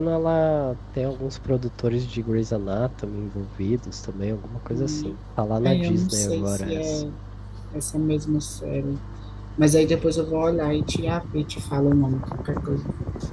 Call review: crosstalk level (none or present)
present